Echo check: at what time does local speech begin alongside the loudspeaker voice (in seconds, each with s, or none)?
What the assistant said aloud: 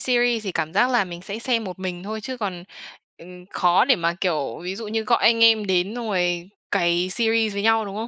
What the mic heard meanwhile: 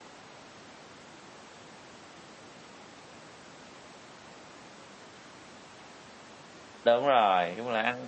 6.8 s